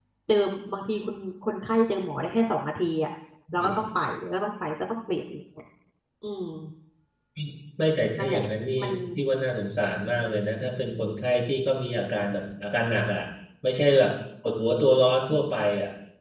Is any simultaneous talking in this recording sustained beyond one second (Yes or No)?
No